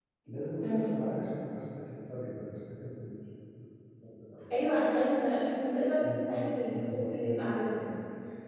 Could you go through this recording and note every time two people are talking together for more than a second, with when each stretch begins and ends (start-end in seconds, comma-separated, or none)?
6.1-7.8